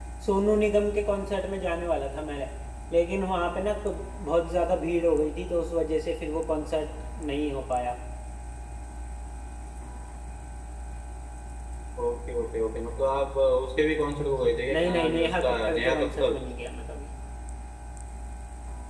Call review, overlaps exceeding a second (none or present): present